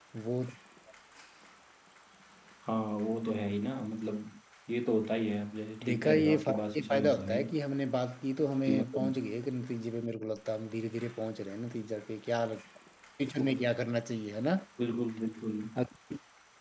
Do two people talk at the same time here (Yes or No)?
Yes